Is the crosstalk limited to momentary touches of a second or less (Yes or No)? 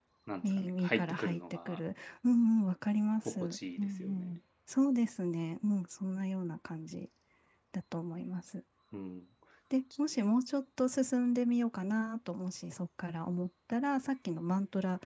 No